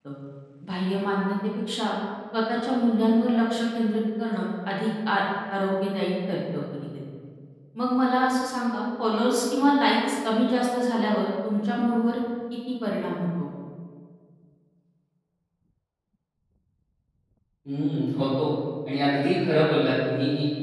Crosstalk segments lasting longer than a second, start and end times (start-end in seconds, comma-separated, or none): none